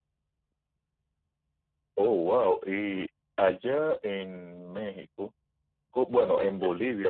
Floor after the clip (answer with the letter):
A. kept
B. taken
A